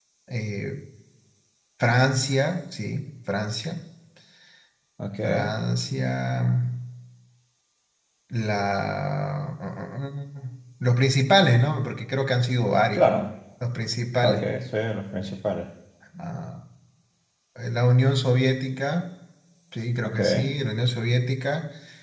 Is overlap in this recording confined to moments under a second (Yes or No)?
Yes